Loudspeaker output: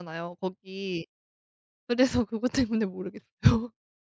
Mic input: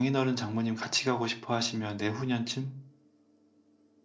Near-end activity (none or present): present